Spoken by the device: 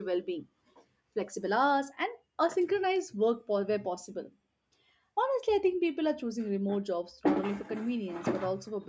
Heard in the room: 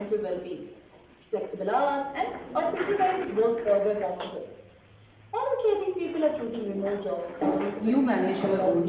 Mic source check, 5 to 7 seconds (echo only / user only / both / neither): echo only